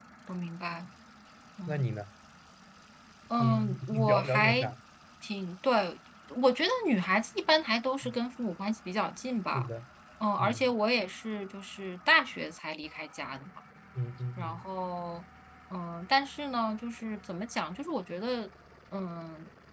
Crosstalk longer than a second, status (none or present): present